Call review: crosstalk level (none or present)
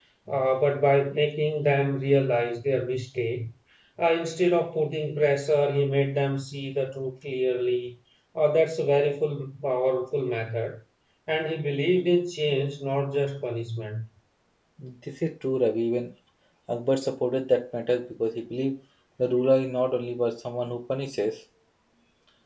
none